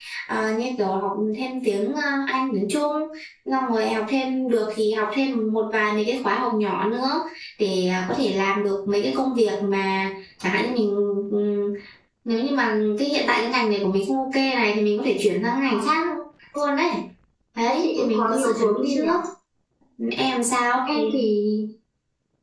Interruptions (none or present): present